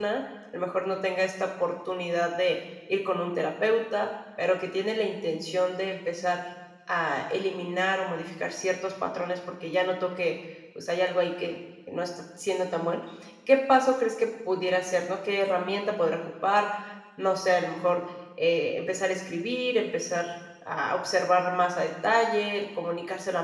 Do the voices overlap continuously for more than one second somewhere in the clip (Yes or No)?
No